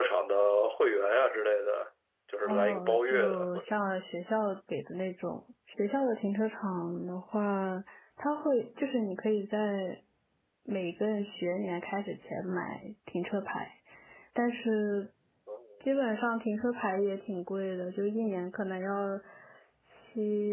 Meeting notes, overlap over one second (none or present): present